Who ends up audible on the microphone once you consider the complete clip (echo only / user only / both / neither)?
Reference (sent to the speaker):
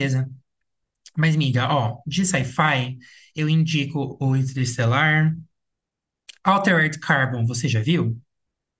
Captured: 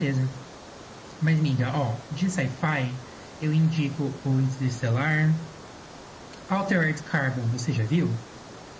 echo only